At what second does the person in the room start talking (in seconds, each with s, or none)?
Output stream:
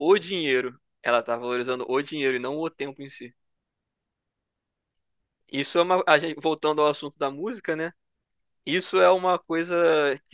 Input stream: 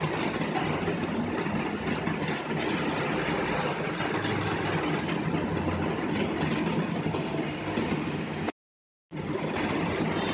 none